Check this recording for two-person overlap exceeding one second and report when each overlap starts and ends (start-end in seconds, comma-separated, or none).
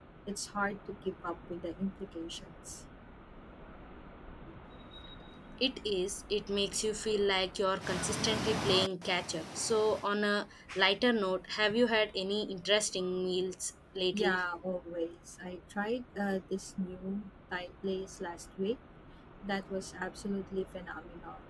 none